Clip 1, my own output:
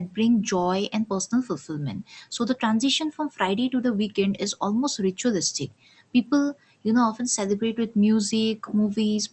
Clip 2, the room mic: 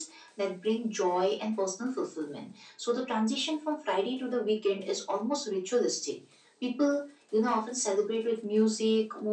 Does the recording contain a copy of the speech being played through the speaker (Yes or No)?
Yes